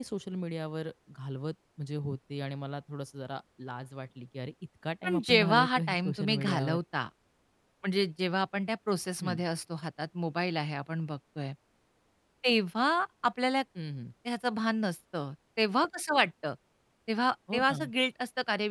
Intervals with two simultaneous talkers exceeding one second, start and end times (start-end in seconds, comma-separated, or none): 5.0-6.8